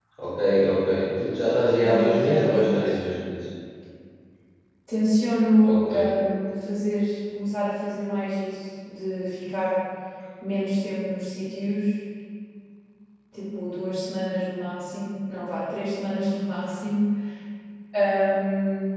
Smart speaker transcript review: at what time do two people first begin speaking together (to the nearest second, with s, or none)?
2 s